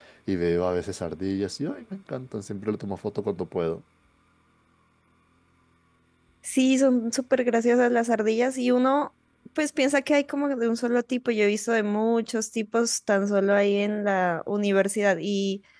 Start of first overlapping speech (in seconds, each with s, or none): none